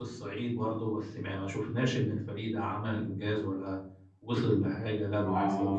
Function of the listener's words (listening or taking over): taking over